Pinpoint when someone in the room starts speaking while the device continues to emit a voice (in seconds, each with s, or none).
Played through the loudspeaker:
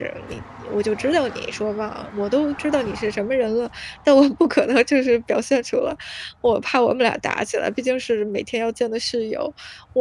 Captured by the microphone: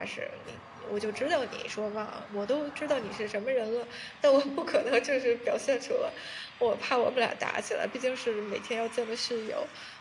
none